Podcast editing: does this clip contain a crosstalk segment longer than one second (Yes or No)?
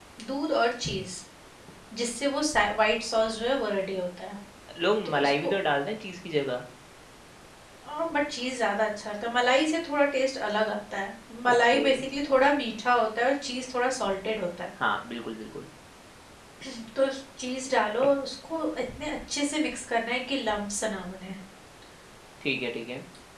No